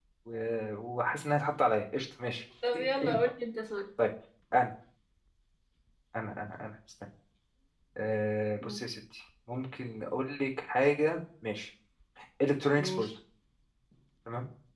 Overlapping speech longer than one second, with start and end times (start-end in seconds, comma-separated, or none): none